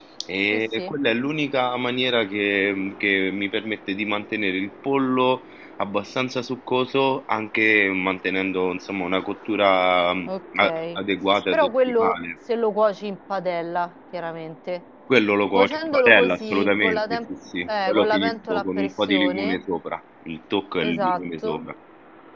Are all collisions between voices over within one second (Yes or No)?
No